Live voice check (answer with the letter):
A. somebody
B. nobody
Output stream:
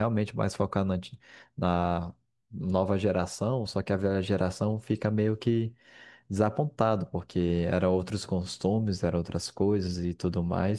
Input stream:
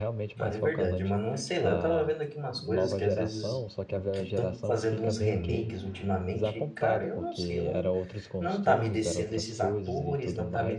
A